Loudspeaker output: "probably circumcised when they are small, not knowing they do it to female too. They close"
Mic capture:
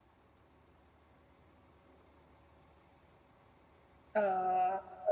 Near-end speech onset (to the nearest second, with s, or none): 4 s